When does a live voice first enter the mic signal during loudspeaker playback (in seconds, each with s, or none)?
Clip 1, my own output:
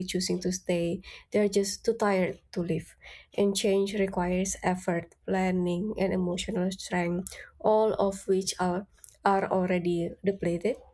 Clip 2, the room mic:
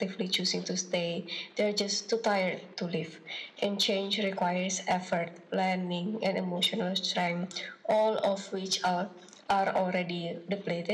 none